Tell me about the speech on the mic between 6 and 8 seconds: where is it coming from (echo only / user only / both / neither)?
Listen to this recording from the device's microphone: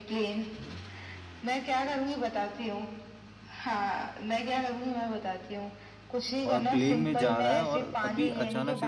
both